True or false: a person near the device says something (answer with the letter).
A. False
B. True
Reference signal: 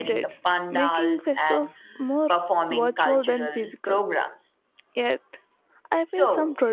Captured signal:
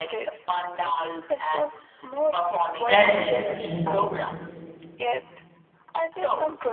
B